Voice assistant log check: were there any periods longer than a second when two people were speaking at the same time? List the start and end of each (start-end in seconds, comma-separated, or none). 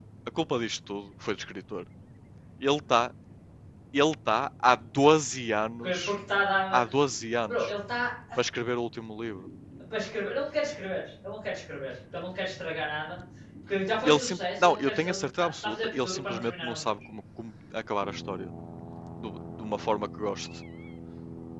14.0-16.9